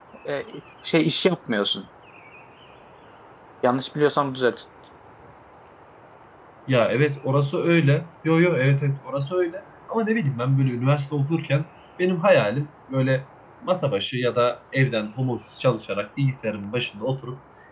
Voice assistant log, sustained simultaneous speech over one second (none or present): none